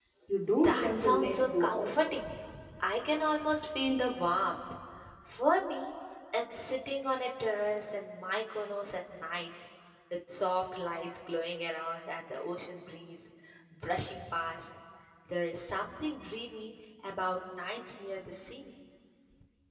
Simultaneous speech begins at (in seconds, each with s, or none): 0.6 s